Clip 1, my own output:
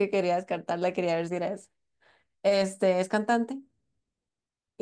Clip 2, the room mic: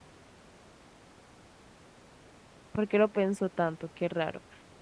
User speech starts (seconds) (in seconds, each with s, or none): 2.7 s